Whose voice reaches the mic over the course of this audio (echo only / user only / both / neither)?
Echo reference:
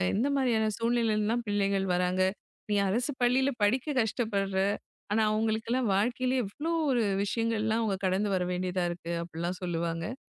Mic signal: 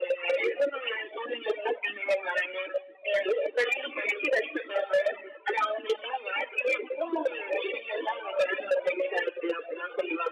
echo only